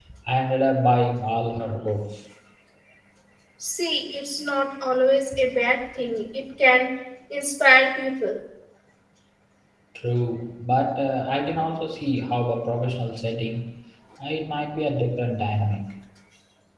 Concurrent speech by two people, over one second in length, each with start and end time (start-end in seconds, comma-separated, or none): none